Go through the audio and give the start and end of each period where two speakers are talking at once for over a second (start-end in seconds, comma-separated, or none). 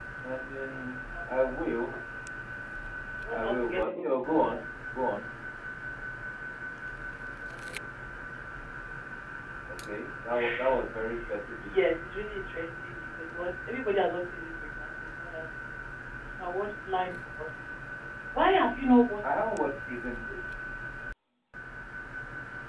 3.3-4.6